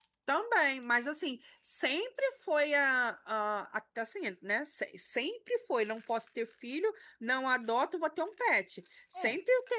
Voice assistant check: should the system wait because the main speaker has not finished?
Yes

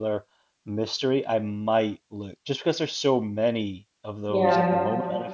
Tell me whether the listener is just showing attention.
Yes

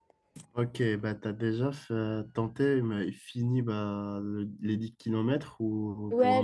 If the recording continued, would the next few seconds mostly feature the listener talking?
Yes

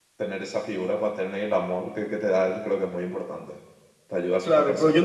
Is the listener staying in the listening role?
No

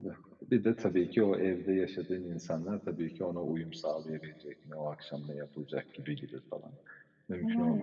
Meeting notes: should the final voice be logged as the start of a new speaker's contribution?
No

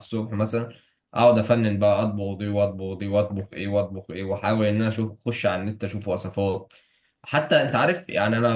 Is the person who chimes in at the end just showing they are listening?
Yes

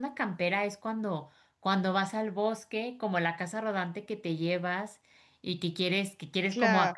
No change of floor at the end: Yes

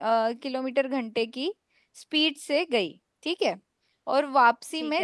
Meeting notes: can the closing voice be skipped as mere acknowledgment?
Yes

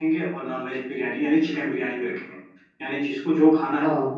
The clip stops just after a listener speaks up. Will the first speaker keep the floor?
Yes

